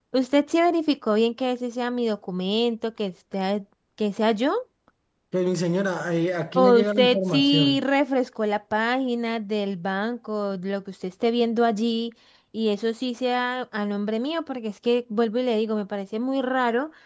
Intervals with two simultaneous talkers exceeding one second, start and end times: 6.5-7.8

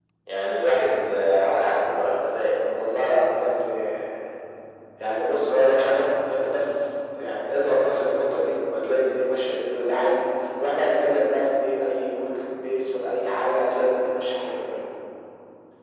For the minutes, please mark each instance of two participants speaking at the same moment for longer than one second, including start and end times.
none

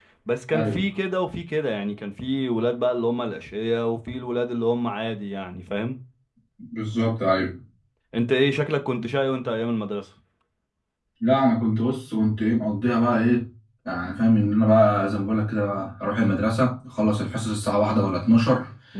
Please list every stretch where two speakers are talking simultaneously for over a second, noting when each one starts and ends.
none

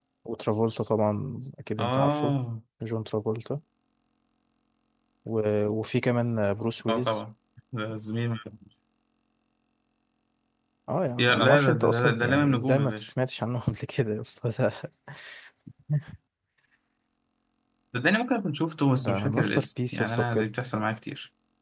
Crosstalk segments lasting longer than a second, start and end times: 11.2-13.1, 19.0-20.5

